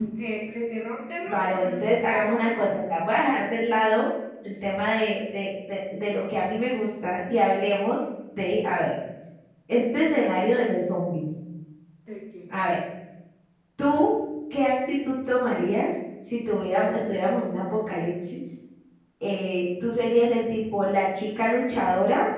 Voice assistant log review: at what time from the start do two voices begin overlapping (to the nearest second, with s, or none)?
1 s